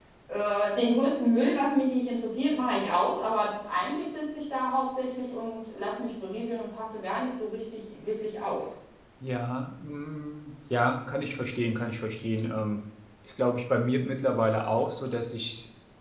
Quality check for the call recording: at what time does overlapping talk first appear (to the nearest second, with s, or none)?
none